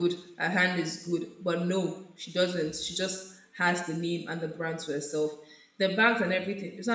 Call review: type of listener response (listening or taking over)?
listening